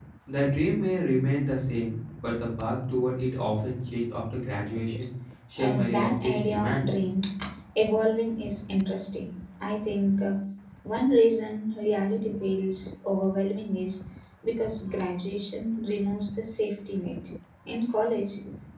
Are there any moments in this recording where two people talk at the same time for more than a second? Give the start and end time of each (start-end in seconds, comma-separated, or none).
5.6-6.9